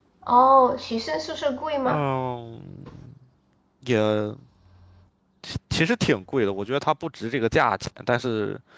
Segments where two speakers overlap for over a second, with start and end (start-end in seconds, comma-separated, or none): none